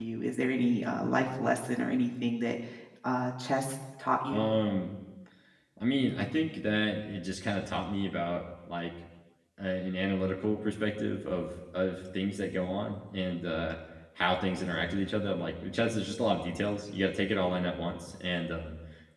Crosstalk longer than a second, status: none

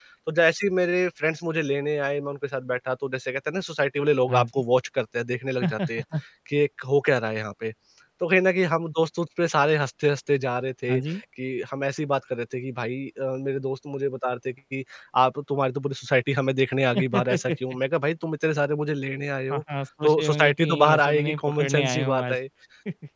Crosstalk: present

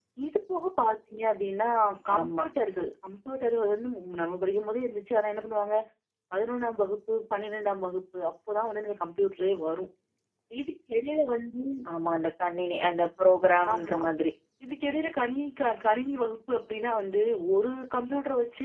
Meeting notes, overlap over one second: none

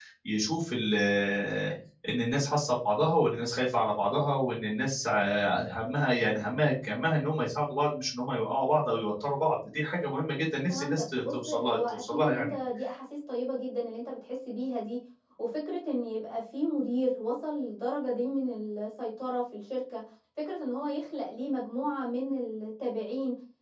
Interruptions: present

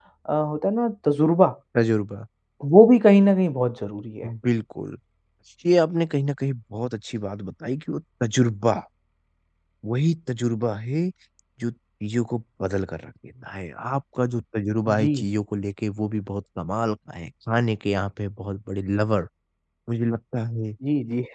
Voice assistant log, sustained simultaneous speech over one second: none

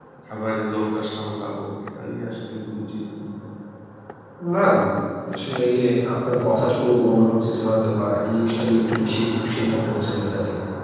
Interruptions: none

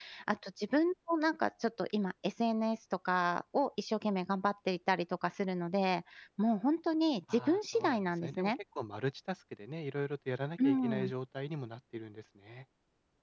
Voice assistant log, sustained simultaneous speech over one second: present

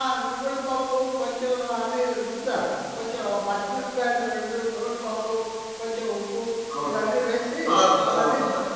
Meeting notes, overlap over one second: none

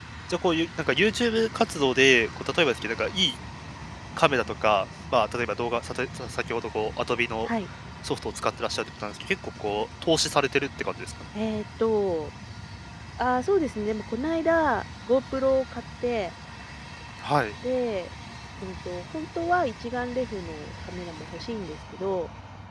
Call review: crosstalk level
none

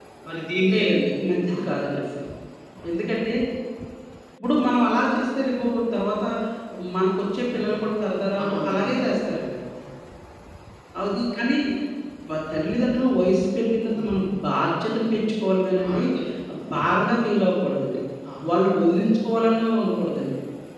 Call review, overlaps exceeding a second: none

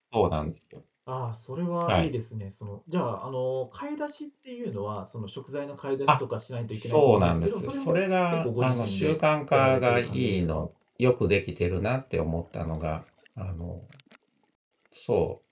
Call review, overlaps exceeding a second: present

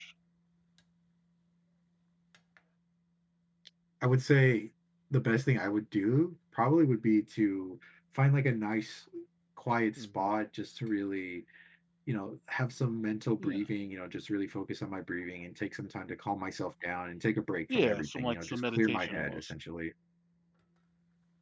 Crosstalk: present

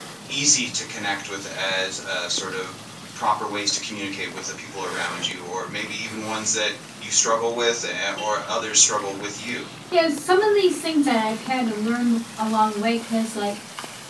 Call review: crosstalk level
none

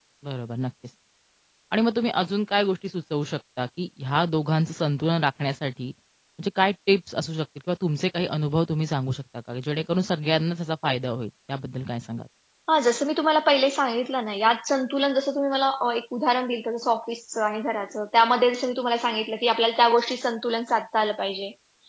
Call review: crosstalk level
none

